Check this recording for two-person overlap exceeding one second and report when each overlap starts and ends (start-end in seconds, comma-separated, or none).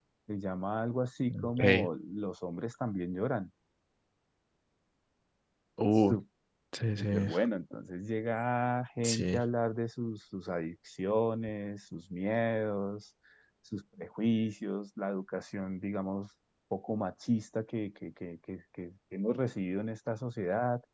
none